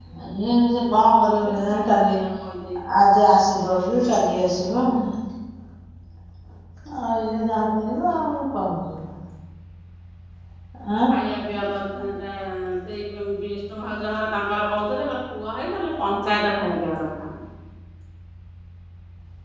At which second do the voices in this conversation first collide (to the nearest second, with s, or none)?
1 s